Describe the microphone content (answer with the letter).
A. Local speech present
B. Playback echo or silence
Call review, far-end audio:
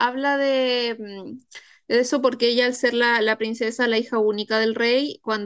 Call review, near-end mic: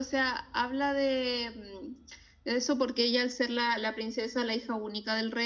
B